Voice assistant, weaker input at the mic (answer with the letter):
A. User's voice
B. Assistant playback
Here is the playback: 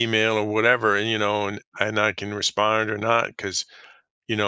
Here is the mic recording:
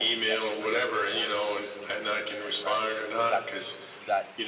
A